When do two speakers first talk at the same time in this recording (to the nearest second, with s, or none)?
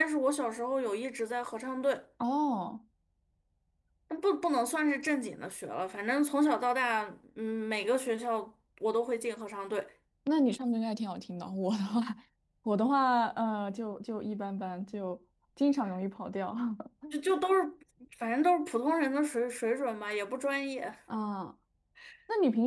none